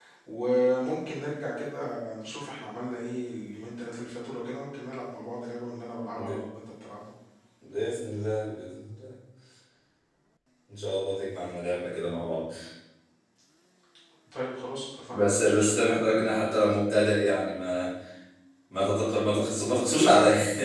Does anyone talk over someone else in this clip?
Yes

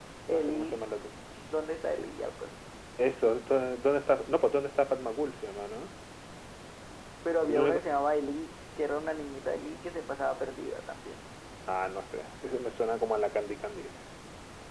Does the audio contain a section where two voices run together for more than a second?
No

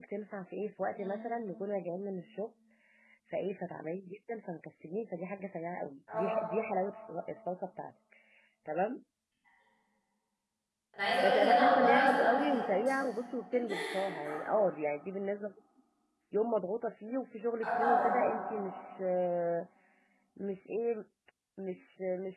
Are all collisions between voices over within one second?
No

